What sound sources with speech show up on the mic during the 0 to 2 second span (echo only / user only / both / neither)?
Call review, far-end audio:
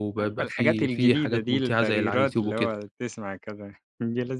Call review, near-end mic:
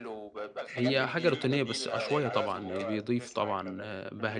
both